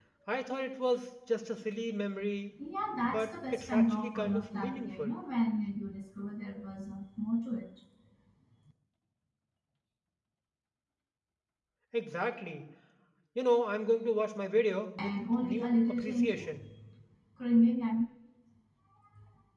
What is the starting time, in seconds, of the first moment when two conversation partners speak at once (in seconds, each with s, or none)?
3.0 s